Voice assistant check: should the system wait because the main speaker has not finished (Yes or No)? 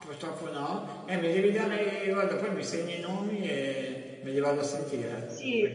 No